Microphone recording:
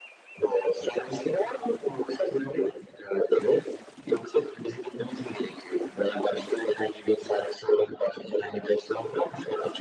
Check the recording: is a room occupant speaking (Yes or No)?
No